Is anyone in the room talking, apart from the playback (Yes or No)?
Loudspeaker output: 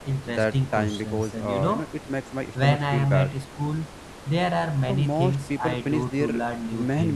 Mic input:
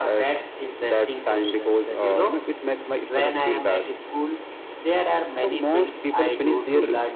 No